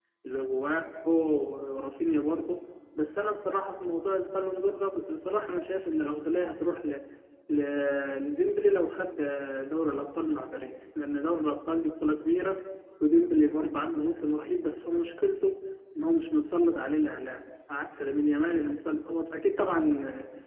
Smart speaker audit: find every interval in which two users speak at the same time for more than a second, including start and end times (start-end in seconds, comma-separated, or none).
none